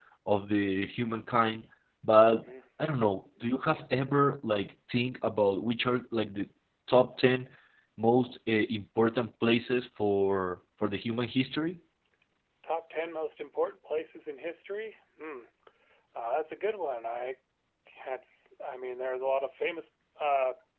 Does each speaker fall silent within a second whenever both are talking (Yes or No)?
Yes